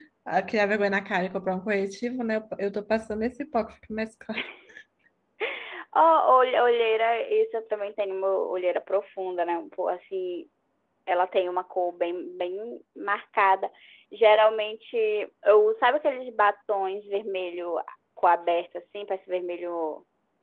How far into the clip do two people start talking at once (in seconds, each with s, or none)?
none